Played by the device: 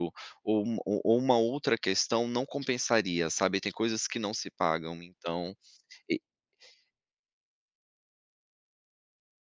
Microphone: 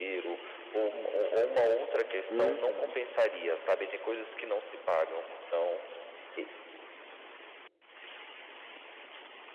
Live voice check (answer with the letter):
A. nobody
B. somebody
B